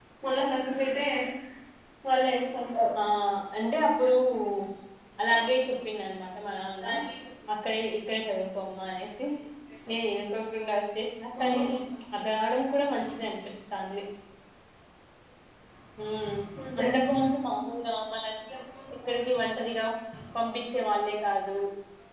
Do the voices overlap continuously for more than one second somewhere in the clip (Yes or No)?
No